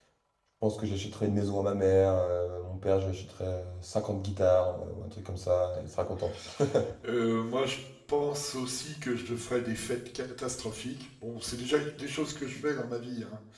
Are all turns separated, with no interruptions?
Yes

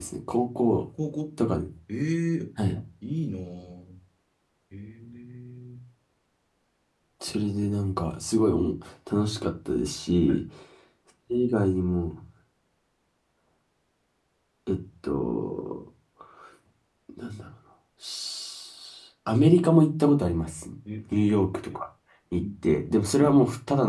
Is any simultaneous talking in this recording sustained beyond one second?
No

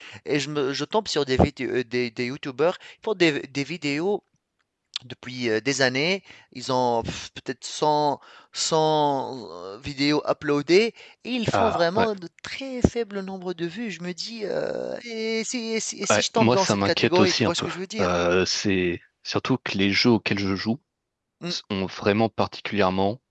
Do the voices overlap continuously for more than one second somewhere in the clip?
Yes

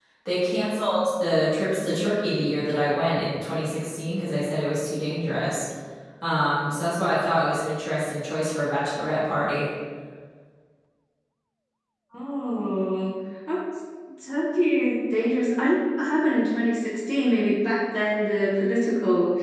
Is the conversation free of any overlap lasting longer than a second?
Yes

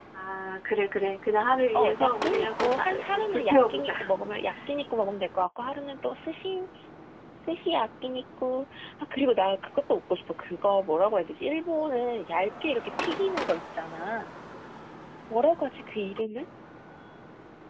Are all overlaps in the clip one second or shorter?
No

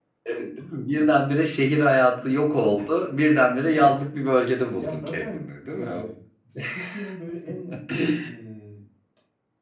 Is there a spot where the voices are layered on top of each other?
Yes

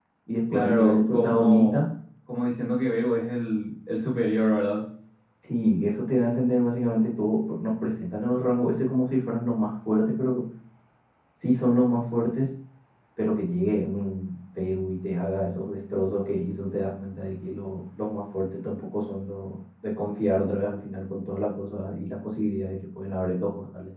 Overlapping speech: Yes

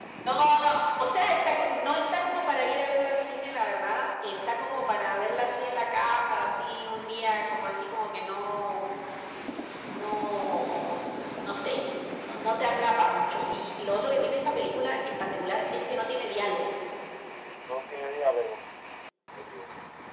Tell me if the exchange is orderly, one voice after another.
Yes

